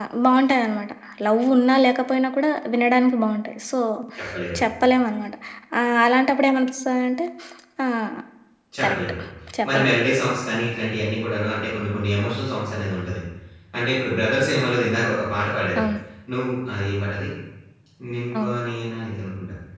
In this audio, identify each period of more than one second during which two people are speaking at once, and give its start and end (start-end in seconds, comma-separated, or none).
none